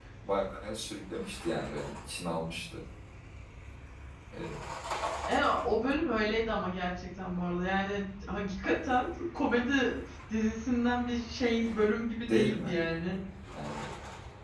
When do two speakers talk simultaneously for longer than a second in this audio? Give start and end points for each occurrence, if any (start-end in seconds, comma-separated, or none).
none